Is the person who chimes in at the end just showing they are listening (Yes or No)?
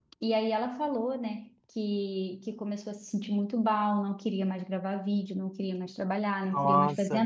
Yes